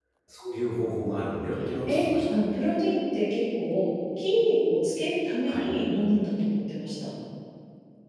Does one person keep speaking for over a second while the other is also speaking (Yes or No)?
No